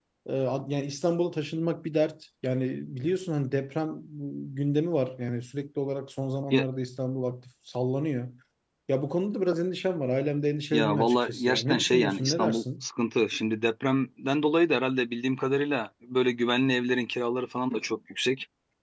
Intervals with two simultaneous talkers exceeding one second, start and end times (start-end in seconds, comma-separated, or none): 10.7-12.8